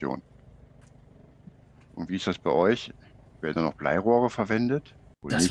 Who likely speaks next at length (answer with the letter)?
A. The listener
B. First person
A